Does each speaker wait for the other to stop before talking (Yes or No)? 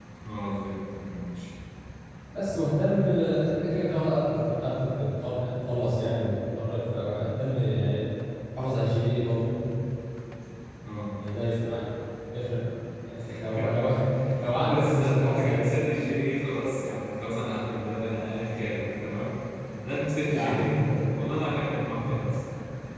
No